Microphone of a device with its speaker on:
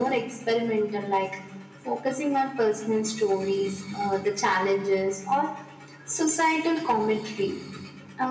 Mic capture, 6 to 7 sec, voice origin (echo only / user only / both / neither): echo only